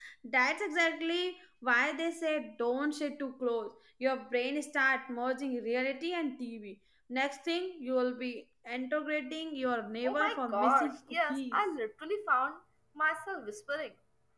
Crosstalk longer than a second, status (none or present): present